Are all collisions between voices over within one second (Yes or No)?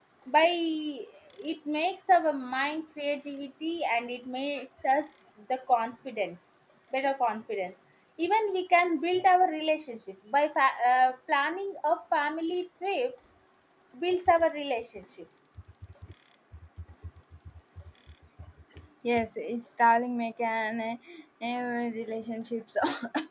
Yes